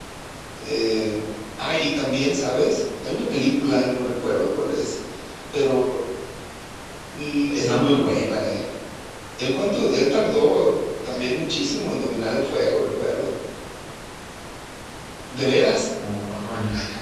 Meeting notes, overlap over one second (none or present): none